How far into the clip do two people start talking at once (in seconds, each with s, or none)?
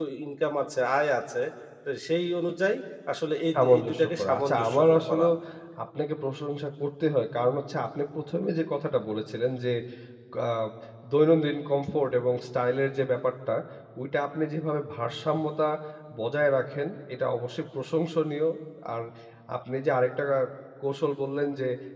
3.5 s